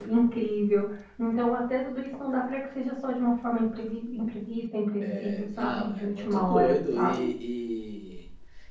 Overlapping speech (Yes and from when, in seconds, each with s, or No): Yes, from 5.0 s